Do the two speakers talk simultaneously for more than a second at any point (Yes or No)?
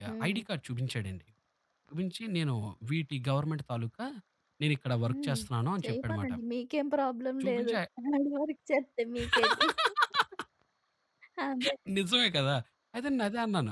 No